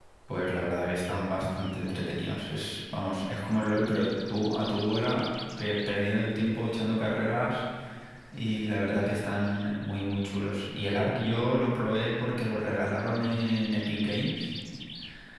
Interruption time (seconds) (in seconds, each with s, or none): none